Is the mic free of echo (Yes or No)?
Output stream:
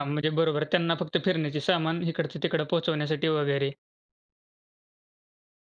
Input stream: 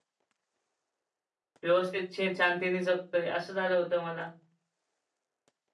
Yes